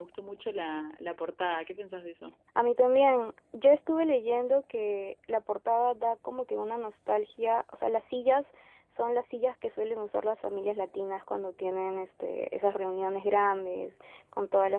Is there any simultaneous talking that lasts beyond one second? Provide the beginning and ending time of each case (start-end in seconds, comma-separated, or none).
none